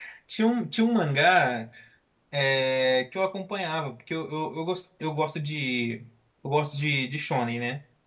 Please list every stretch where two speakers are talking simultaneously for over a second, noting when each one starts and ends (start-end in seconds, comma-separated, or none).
none